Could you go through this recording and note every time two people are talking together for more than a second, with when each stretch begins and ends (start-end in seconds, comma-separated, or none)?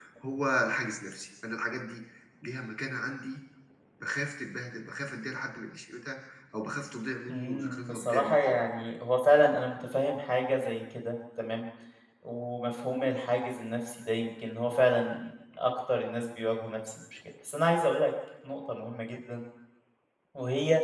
7.3-8.6